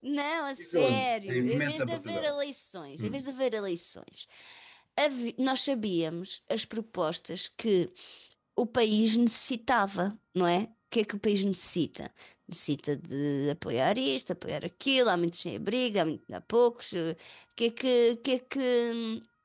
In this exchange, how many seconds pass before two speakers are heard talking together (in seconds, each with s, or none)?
0.7 s